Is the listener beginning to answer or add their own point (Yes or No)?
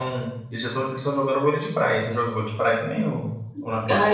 Yes